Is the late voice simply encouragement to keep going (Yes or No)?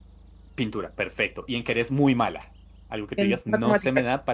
Yes